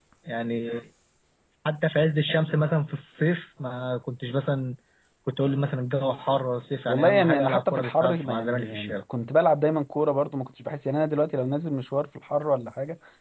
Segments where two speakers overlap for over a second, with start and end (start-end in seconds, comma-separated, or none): 6.9-9.0